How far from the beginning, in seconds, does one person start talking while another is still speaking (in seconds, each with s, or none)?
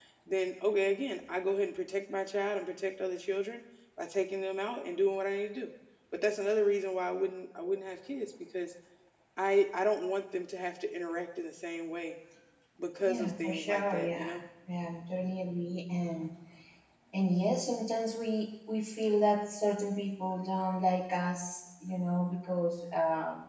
13.0 s